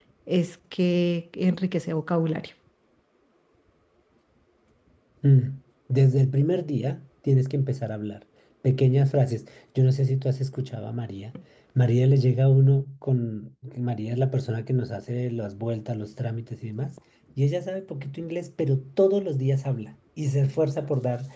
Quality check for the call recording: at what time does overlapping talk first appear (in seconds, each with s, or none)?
none